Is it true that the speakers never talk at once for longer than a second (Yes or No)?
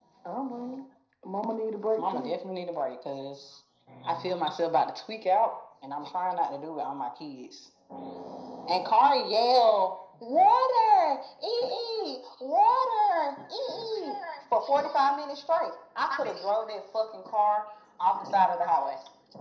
Yes